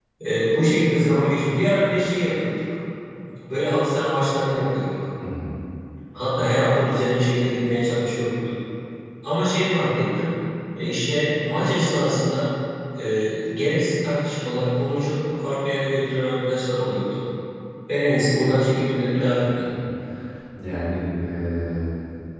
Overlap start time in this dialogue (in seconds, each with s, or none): none